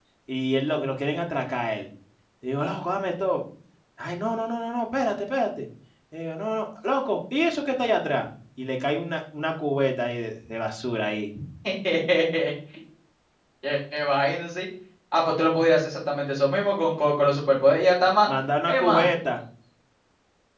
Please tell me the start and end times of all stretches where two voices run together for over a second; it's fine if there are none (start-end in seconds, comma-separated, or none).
none